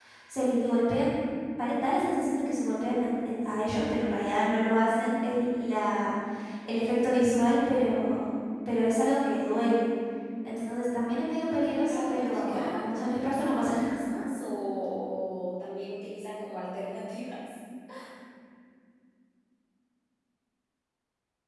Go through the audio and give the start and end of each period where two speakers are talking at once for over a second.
11.8-13.9

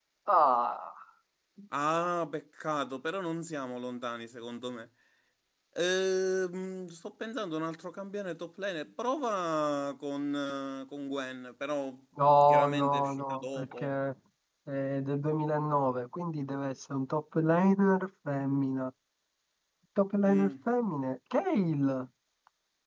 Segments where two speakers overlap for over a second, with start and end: 12.5-13.9

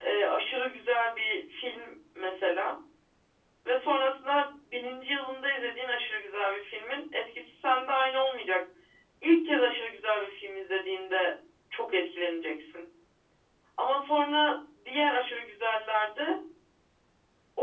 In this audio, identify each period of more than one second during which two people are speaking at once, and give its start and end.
none

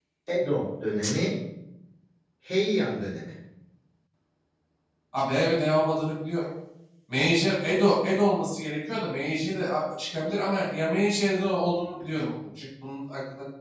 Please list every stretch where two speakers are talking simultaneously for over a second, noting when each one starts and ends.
none

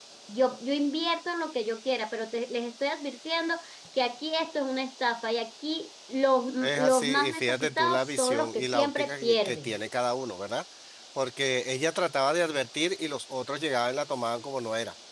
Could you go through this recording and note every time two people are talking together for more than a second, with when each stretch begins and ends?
6.6-9.7

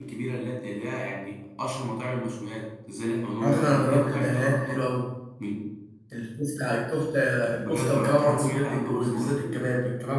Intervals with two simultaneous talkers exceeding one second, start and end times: 3.4-4.9, 7.6-9.6

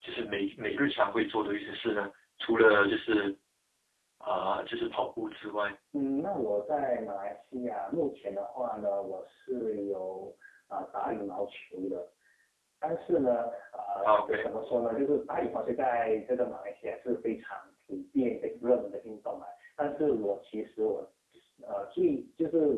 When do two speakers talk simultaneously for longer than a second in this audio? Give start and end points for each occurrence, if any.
none

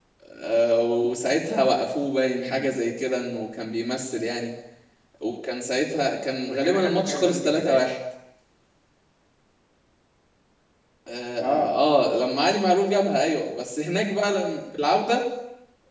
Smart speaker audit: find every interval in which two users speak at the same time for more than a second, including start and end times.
6.5-7.8

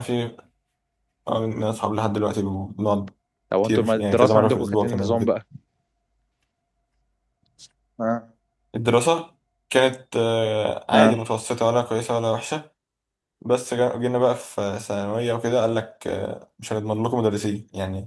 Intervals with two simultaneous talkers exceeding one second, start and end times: 3.6-5.3

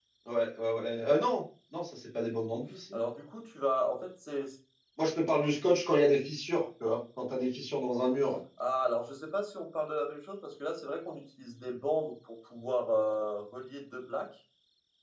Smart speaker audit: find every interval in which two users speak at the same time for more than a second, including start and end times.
none

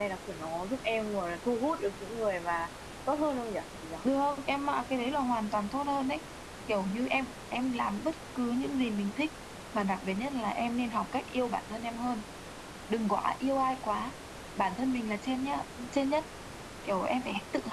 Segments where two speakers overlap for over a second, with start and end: none

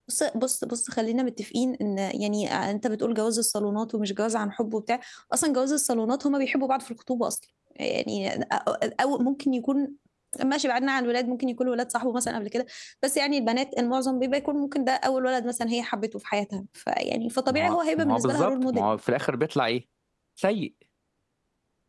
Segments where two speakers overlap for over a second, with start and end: 17.5-19.0

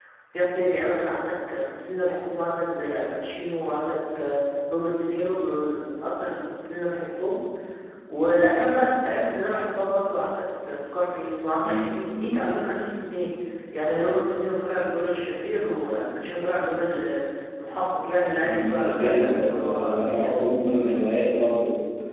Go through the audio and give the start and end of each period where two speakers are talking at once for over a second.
18.4-20.3

